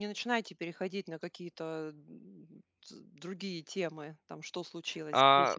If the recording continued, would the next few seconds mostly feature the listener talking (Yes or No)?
Yes